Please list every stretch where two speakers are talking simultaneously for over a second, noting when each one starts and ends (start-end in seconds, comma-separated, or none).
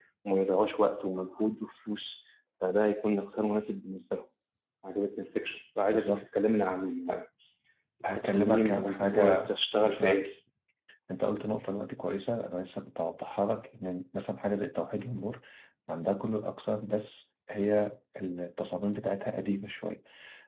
8.2-10.2